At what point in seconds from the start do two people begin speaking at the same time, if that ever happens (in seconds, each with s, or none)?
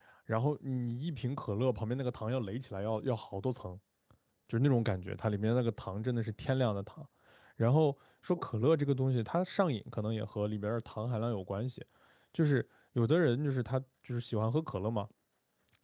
none